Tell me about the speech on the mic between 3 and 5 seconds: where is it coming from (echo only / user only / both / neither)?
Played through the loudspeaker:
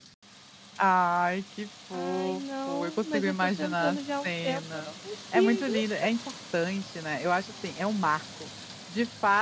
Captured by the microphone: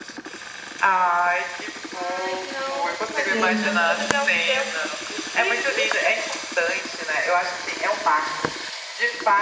both